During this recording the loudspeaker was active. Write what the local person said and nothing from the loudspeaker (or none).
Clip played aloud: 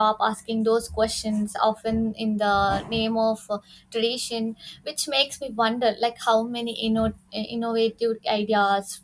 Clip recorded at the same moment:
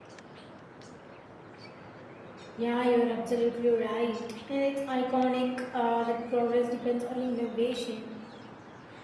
yeah you're absolutely right and it's iconic uh, that progress depends on innovation